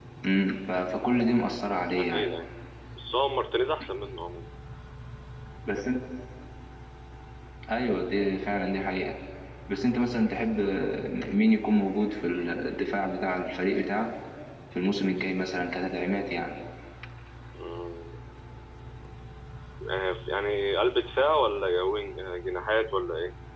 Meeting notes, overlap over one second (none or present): none